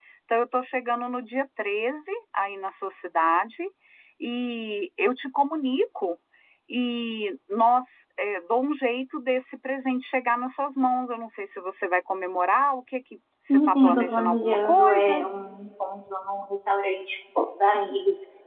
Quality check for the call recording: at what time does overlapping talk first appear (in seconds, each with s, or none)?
13.5 s